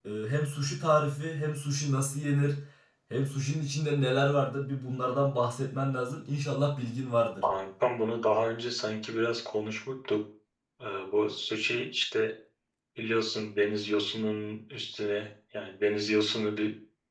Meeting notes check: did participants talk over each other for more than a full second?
No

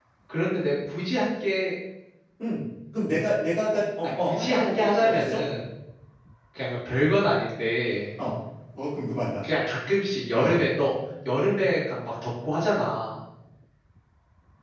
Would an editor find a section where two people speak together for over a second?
Yes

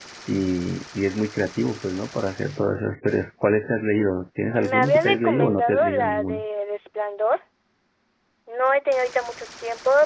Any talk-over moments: Yes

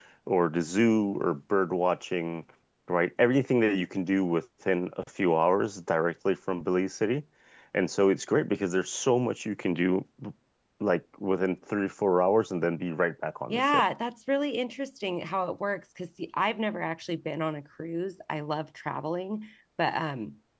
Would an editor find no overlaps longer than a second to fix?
Yes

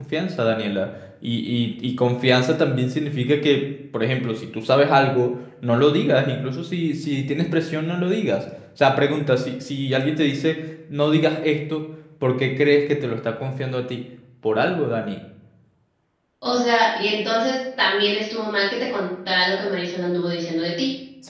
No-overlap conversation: Yes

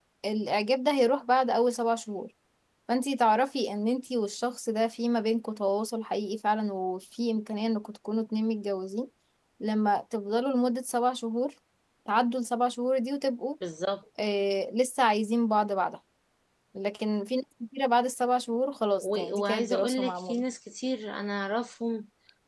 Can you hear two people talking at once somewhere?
Yes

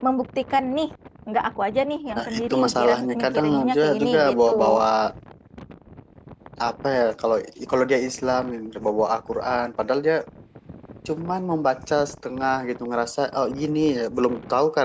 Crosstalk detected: Yes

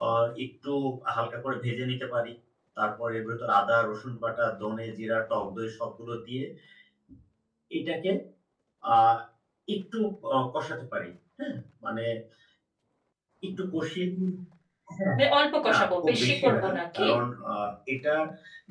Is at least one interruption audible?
Yes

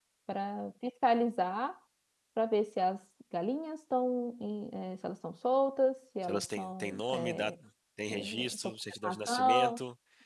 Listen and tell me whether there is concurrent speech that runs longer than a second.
Yes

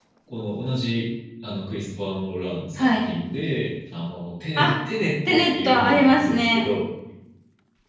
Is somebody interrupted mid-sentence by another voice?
Yes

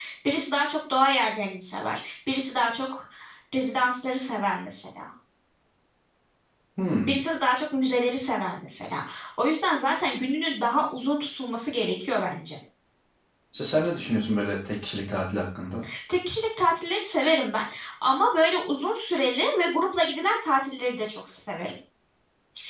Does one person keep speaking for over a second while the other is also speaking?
No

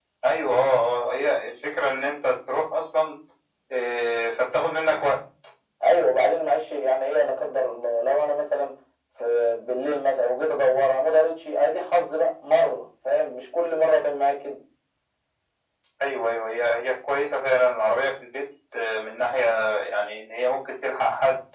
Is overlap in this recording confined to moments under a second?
Yes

